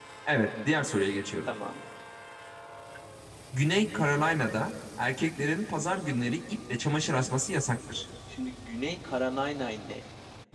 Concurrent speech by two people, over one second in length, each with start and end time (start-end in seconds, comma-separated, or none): none